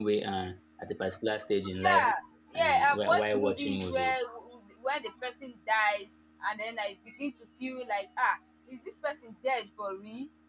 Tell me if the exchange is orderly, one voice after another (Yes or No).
No